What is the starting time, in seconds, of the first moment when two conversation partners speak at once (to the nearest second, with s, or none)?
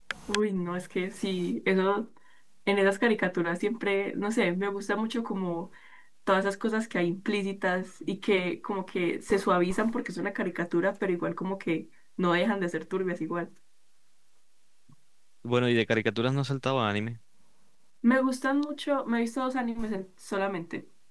none